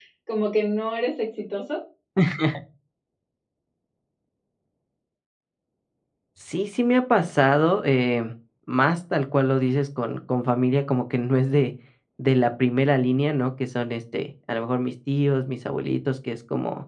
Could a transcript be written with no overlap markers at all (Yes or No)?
Yes